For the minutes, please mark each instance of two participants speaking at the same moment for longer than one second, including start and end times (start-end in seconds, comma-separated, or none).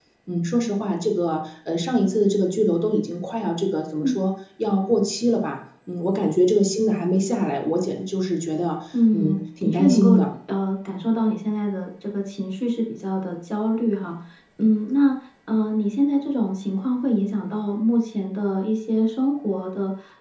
8.9-10.2